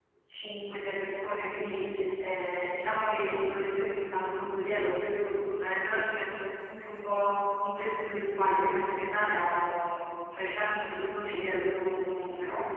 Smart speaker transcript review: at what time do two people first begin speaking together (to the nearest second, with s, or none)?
none